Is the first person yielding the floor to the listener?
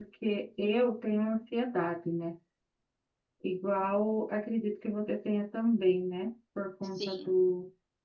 No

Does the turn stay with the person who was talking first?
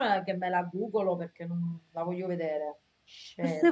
No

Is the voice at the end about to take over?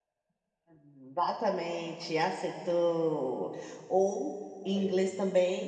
No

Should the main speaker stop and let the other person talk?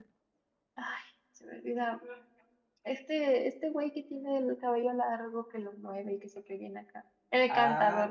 Yes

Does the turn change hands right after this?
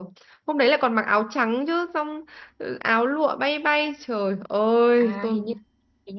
Yes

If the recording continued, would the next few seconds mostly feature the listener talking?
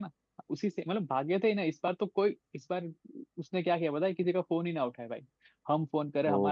No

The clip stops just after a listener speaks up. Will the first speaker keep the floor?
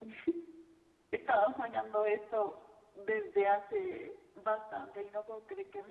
No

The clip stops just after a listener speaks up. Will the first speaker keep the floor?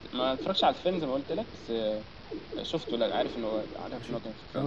No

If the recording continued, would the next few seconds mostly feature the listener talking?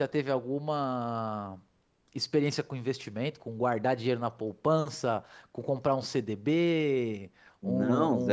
Yes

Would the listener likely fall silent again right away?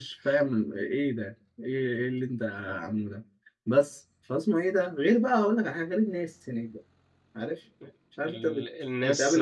No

